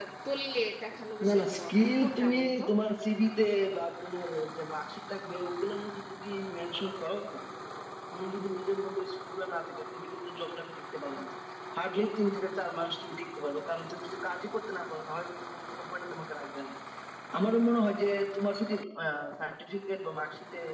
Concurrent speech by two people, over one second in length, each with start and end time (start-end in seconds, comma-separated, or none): 1.2-2.6